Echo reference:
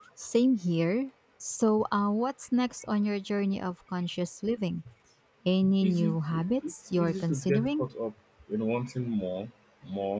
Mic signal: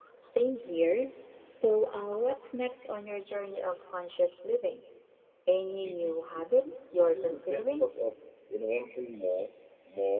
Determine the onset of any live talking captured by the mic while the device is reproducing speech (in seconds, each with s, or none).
none